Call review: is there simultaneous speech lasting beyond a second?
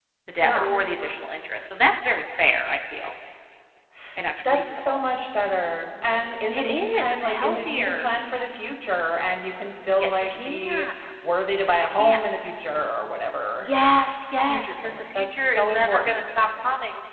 Yes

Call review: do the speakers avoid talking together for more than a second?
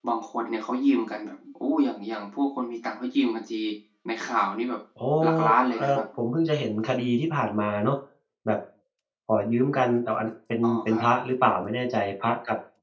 Yes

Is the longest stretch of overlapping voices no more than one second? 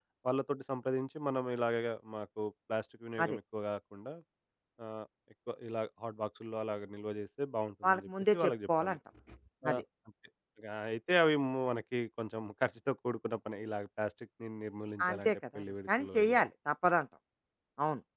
No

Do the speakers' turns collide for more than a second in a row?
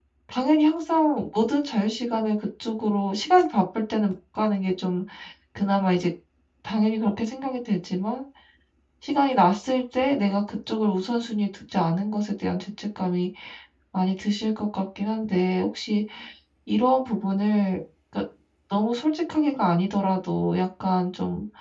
No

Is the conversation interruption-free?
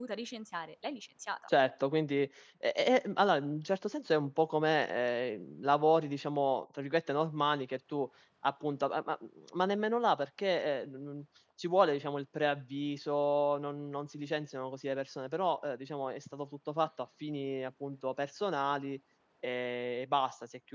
Yes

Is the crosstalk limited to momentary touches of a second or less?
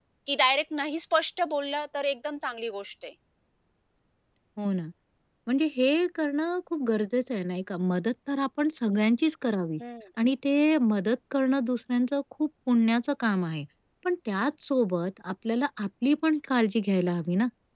Yes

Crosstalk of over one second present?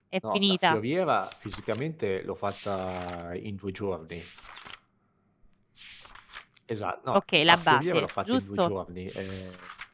Yes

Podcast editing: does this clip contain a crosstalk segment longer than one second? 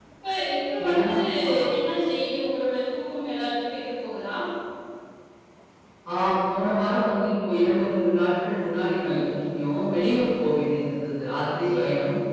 No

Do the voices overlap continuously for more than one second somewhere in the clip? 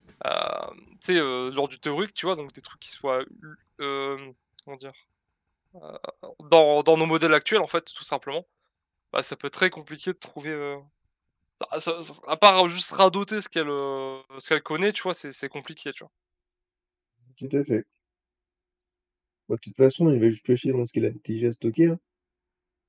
No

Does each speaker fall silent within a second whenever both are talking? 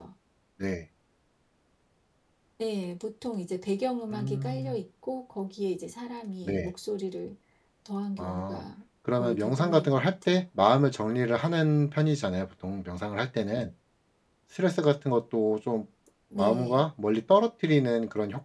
No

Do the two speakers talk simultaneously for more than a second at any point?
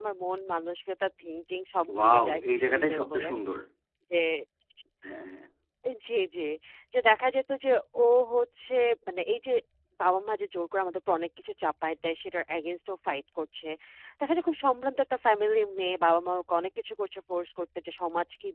Yes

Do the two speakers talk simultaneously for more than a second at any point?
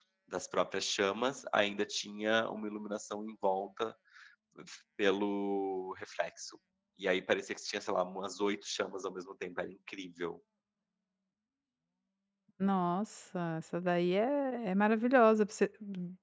No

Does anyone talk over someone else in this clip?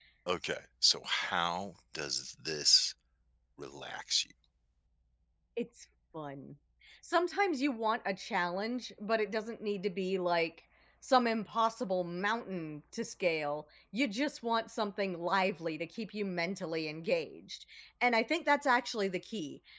No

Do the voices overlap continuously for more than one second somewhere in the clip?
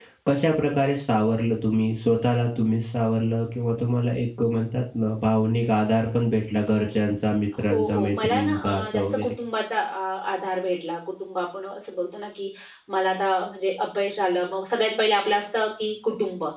Yes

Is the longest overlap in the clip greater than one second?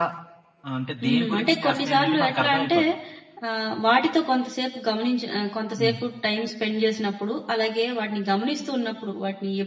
Yes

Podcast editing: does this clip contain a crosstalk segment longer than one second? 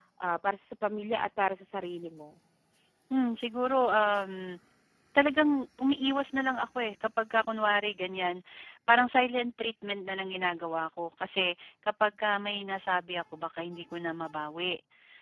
No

